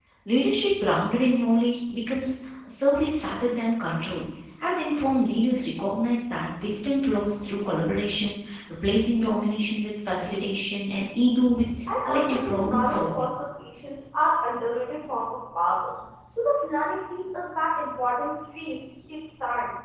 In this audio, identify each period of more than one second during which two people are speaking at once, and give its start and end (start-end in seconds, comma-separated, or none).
12.1-13.3